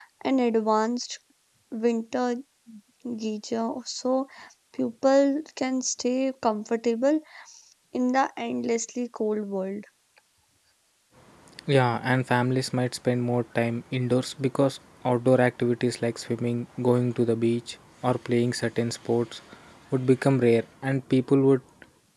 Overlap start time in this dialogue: none

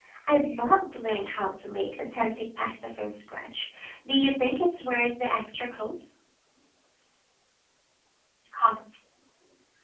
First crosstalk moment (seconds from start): none

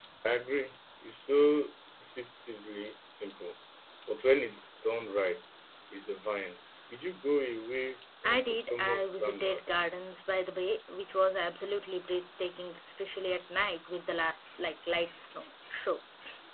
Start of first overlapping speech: 8.2 s

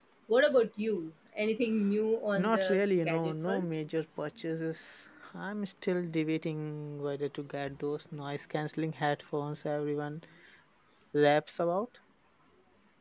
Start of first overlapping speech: 2.3 s

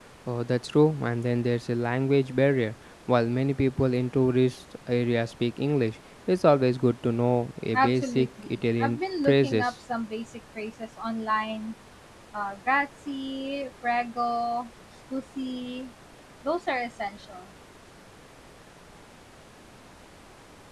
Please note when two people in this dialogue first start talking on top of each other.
7.7 s

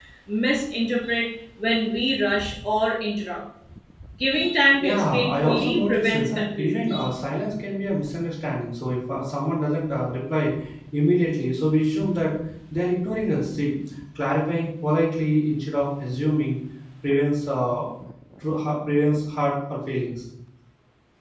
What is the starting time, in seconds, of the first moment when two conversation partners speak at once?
4.8 s

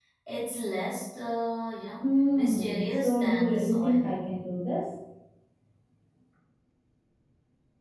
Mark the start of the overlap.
2.0 s

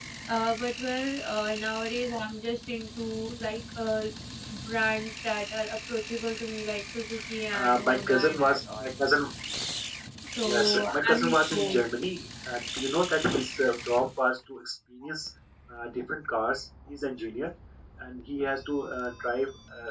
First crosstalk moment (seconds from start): 7.5 s

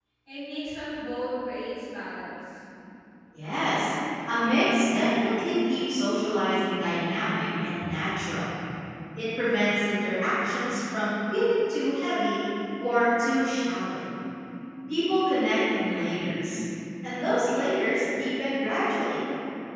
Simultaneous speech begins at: none

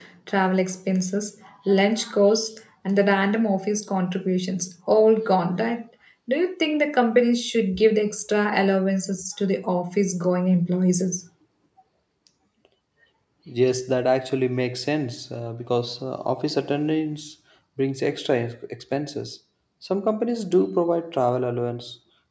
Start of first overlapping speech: none

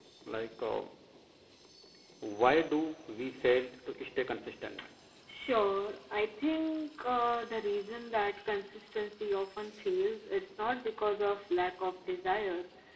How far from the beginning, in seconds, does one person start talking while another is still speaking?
none

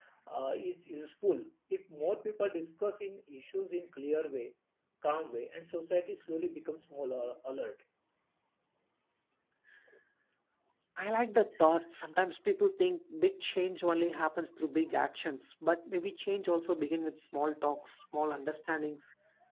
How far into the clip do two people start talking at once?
none

